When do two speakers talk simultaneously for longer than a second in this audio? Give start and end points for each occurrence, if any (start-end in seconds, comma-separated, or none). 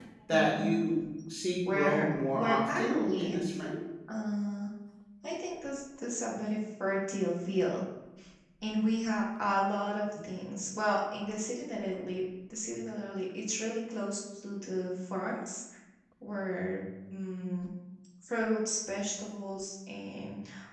1.7-3.6